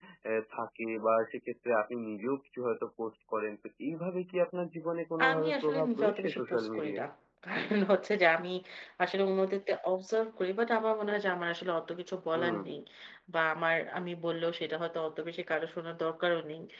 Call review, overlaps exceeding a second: present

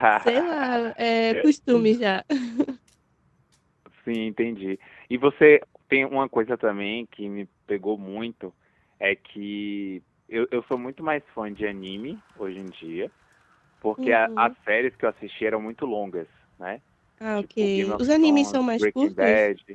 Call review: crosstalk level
present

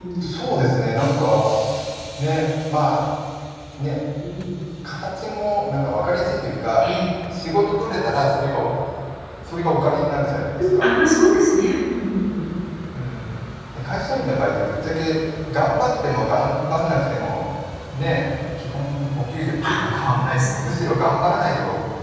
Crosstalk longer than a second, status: none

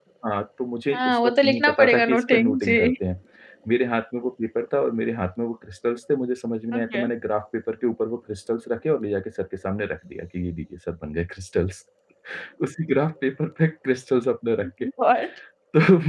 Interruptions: present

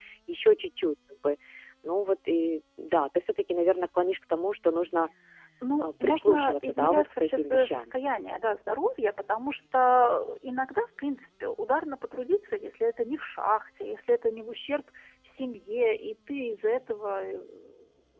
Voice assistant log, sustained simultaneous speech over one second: present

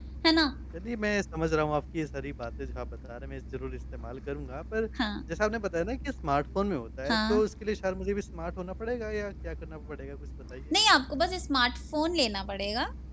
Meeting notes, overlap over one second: none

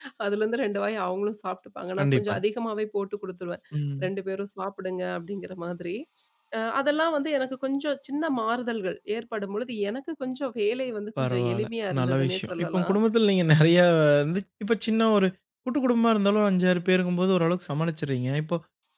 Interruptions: present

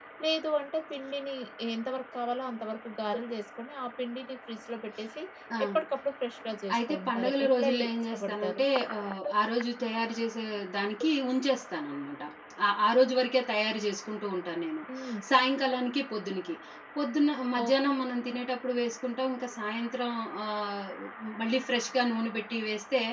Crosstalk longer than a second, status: present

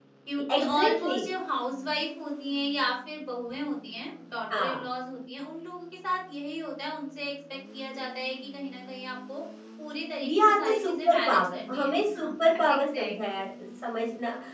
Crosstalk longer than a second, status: present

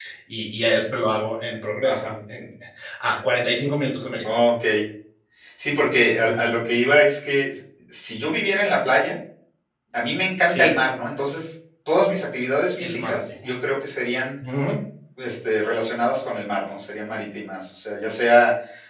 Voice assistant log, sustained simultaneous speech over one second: none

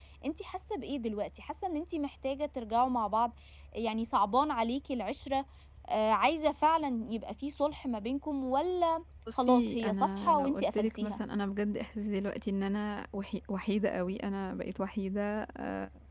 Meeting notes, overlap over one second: present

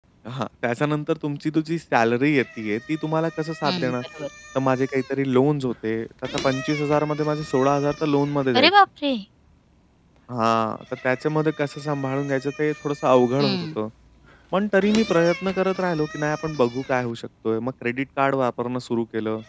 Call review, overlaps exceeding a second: none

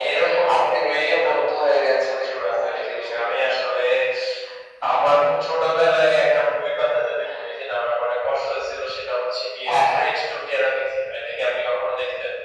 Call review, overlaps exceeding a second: present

